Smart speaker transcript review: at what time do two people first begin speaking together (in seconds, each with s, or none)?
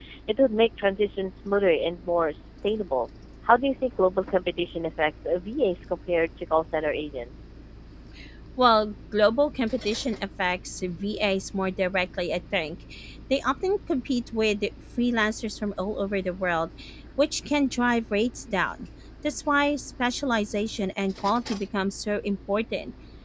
none